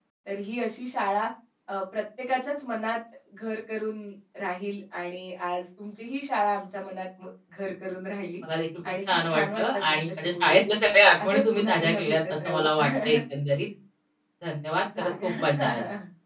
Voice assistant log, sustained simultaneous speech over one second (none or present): present